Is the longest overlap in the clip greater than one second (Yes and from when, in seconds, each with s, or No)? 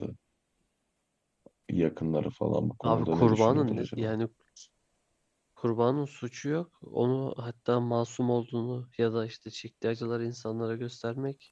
Yes, from 2.8 s